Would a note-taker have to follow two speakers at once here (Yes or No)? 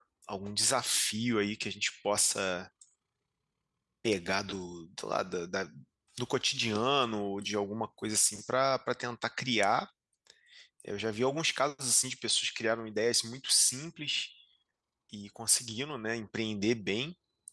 No